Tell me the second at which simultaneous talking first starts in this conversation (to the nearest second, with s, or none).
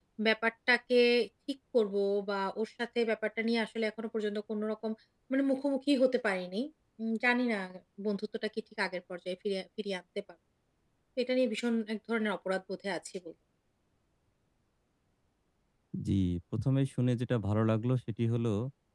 none